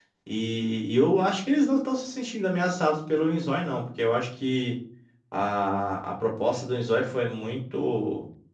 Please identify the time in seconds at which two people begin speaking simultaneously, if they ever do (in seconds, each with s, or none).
none